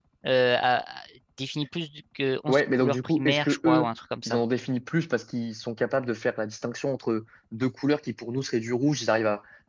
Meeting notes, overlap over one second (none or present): present